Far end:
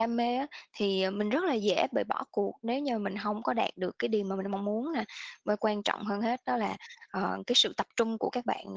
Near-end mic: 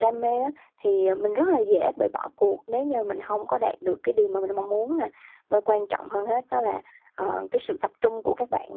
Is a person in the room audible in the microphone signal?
No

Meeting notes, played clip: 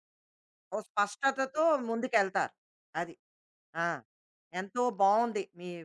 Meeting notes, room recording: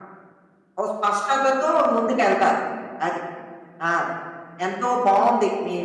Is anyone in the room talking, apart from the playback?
No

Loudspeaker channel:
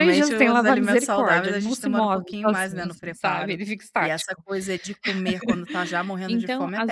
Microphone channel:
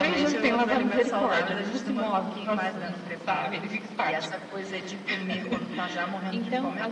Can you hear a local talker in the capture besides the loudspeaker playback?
No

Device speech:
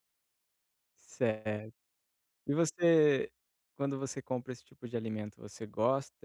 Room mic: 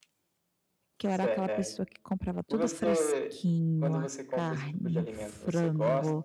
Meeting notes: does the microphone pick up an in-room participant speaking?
Yes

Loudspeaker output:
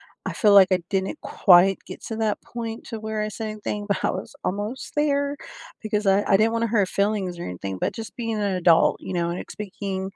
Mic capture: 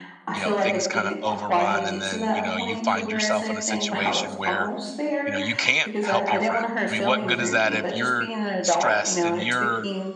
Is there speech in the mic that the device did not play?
Yes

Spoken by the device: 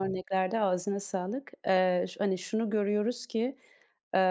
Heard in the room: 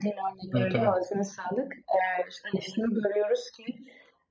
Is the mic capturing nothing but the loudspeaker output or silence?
No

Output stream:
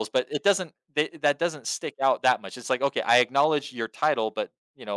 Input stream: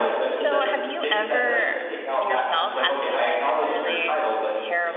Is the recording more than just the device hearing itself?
Yes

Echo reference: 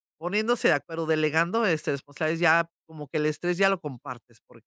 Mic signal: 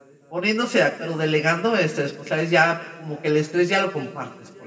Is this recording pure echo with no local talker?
Yes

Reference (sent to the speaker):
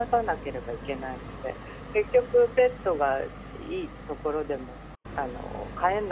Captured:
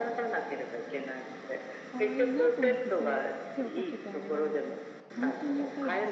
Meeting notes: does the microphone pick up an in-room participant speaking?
Yes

